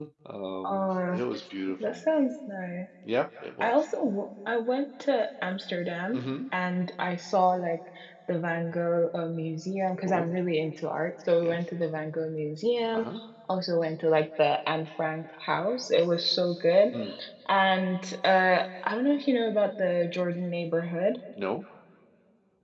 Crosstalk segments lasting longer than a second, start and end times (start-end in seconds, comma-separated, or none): none